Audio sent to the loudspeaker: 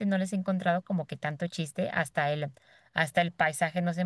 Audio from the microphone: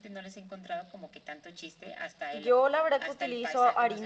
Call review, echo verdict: present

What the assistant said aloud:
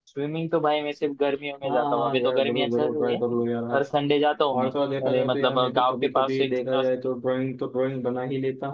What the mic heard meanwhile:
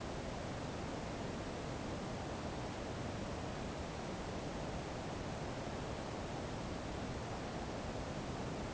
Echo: none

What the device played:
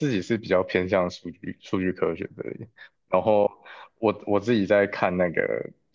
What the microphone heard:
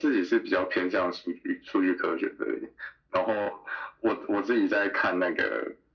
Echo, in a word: present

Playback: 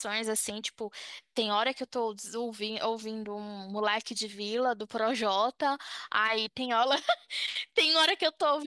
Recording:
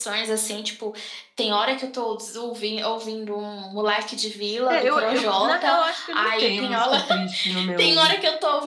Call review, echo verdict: present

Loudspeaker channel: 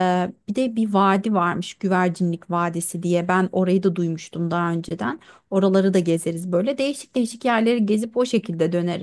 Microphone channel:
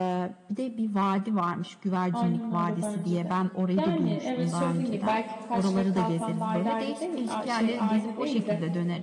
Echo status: present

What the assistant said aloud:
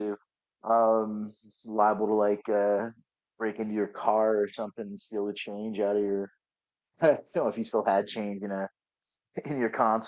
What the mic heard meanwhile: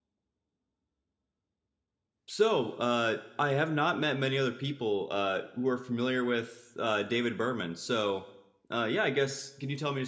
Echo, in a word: none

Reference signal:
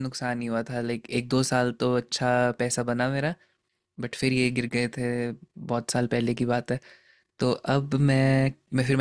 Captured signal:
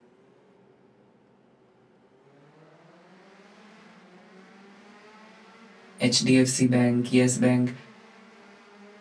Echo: none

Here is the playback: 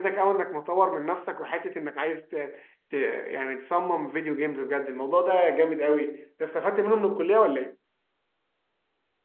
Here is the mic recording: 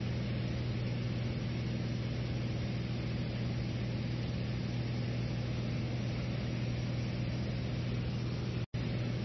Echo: none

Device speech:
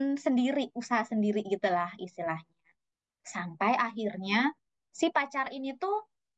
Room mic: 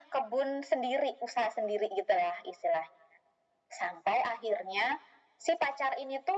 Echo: present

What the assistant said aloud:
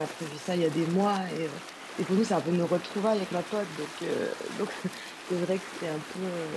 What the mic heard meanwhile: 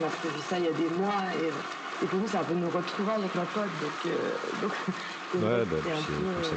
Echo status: present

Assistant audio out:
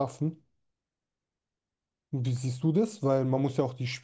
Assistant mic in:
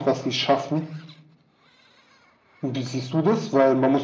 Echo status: present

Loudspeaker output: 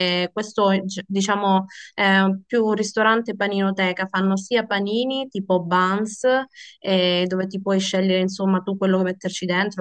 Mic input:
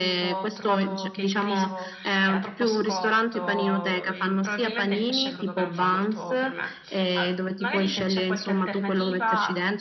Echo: present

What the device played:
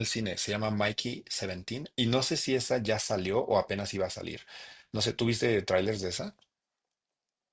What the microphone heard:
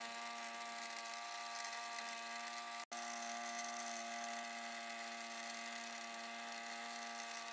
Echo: none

